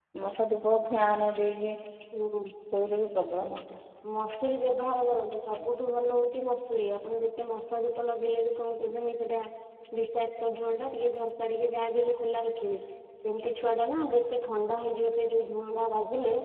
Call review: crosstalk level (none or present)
none